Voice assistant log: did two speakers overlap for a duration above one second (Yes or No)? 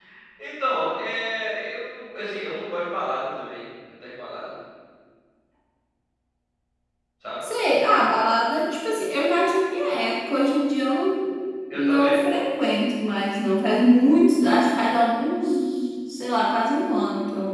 No